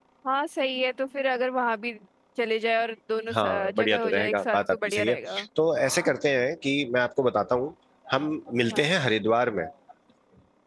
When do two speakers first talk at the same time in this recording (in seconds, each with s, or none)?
3.3 s